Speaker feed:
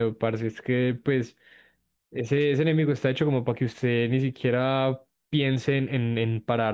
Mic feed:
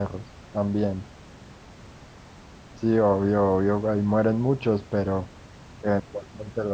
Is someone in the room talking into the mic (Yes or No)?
Yes